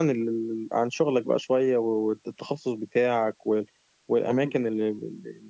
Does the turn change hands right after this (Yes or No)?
No